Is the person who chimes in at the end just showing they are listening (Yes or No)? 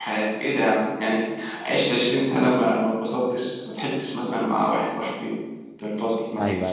Yes